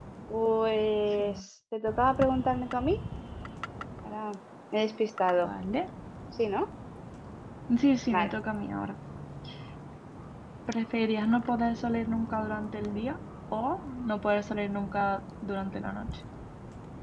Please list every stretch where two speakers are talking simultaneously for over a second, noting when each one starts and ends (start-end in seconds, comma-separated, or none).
none